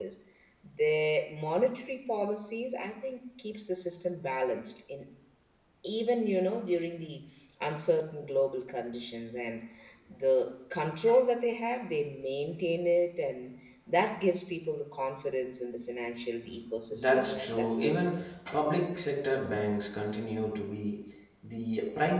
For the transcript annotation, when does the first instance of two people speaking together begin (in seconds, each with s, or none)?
16.9 s